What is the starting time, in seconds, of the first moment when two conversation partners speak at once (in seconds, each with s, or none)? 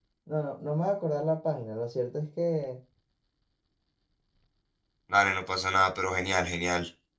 none